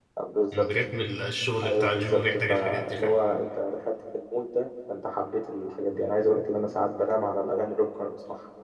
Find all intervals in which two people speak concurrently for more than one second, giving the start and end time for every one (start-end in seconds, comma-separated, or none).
1.6-3.1